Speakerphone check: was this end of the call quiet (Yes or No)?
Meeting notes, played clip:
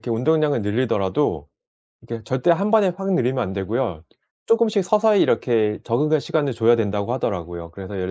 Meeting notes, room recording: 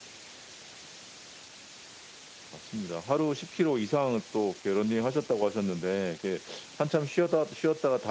No